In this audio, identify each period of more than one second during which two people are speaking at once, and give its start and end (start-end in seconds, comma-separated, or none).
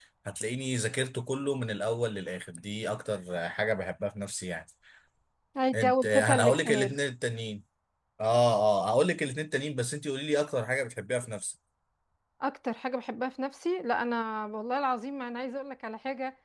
5.7-7.0